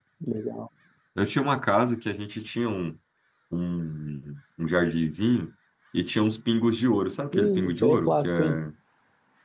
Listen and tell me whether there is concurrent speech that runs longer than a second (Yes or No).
Yes